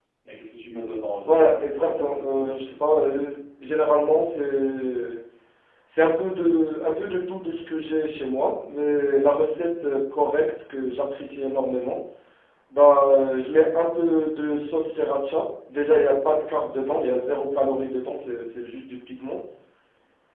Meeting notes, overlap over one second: present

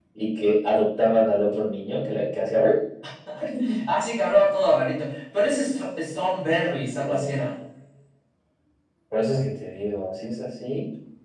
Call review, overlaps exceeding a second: none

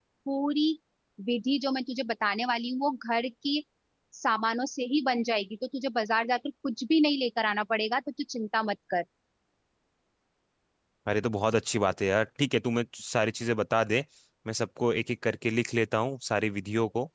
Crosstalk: none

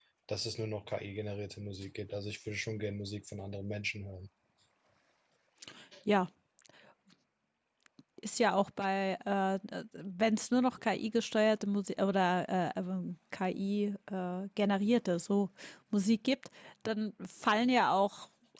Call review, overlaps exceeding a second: none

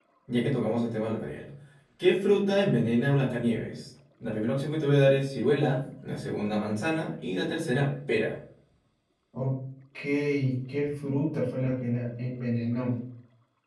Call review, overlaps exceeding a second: none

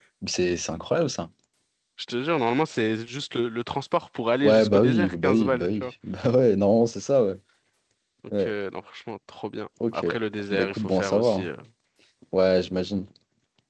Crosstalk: present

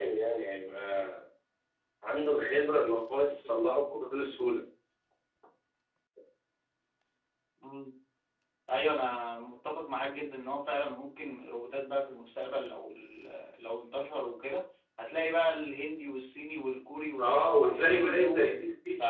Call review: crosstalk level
present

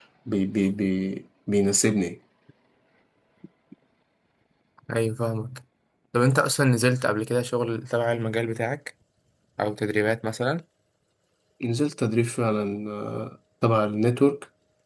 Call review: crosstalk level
none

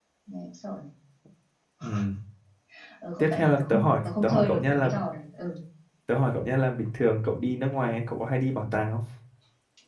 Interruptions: present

